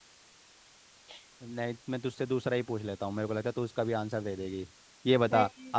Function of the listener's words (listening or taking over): listening